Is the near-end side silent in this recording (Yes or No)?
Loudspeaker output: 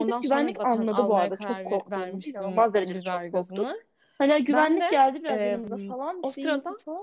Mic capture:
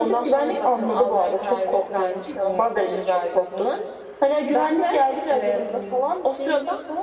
Yes